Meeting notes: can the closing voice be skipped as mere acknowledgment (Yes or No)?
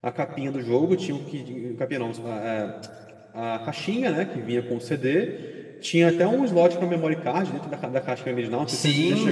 No